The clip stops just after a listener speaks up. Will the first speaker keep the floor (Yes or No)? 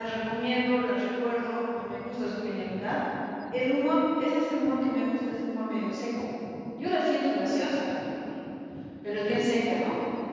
Yes